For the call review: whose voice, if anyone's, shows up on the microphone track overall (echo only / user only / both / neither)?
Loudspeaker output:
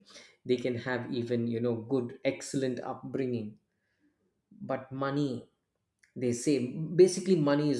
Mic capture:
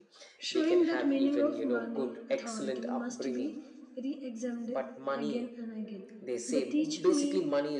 both